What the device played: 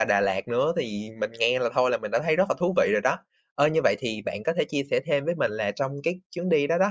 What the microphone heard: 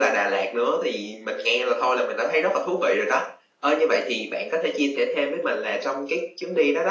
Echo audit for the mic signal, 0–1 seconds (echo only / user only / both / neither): echo only